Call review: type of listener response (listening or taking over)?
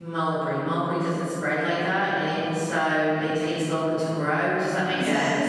taking over